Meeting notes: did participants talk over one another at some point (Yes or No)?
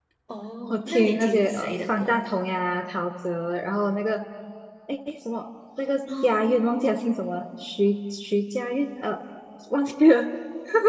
Yes